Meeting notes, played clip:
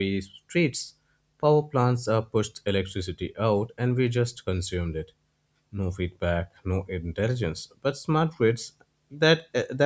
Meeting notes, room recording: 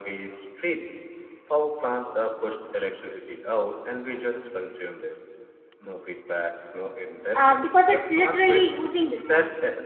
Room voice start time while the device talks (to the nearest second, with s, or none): 7 s